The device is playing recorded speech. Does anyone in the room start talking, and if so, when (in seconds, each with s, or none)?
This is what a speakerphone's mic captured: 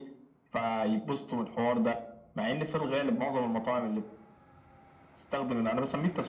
none